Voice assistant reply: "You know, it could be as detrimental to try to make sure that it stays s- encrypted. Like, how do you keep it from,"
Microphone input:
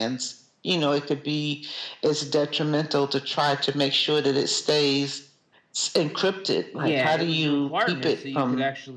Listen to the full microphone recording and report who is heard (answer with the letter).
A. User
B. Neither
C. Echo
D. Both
D